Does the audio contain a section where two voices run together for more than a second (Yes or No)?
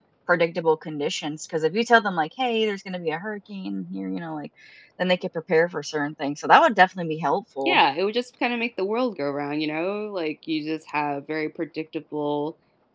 No